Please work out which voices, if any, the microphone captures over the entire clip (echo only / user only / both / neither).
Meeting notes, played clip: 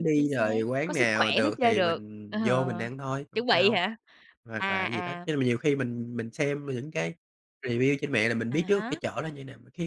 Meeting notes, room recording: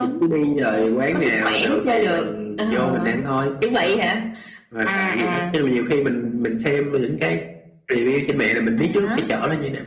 echo only